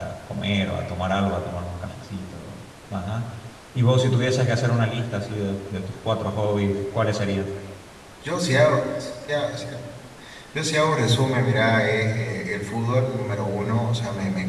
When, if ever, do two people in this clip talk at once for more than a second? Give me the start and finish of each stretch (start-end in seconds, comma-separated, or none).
none